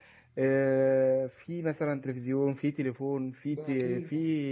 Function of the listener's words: listening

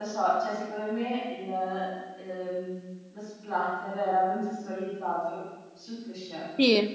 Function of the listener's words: taking over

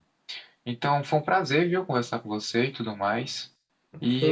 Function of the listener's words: taking over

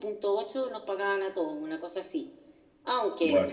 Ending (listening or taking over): listening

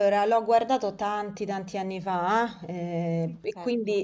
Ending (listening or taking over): listening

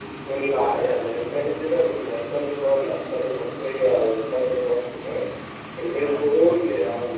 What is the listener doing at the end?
listening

